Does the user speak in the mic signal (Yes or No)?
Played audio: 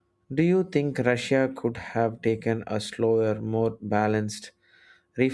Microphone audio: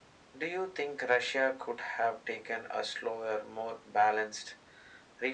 No